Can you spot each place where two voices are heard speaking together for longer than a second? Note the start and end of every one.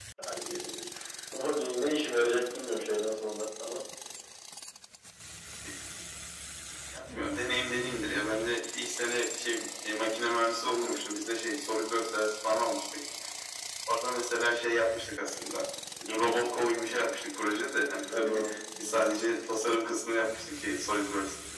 none

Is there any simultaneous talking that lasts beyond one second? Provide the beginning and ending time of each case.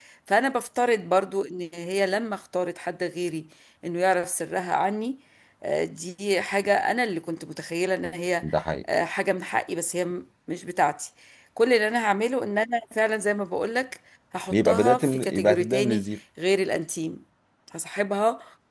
14.5-16.1

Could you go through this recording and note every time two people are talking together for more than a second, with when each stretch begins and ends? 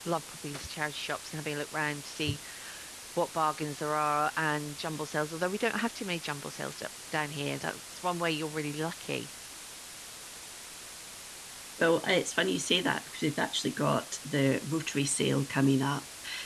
none

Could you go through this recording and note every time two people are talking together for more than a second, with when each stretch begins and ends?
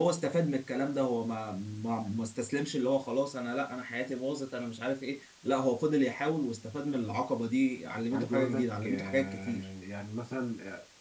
8.1-9.7

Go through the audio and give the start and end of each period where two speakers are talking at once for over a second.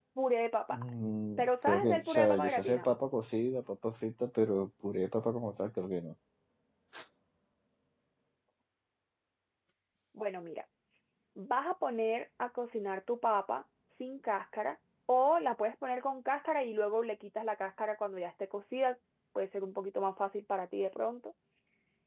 1.4-3.0

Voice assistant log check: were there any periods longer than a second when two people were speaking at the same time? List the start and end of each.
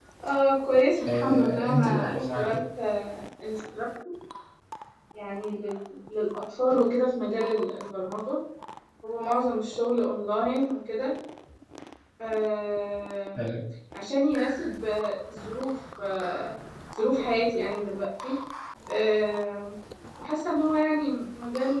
1.1-2.6

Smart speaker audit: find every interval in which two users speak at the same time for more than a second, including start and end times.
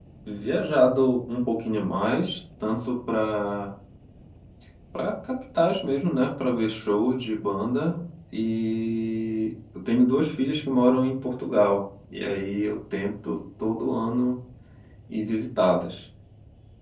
none

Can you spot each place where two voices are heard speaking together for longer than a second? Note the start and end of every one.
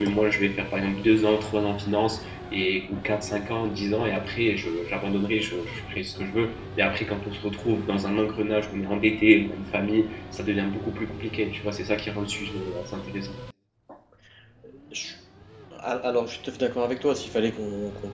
none

